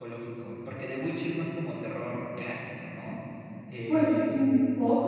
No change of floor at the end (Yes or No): No